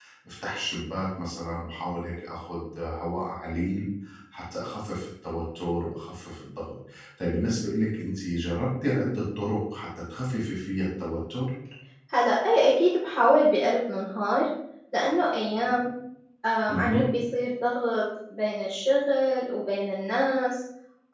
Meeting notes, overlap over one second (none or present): none